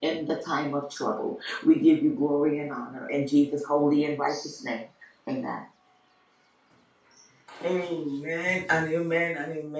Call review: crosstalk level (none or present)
none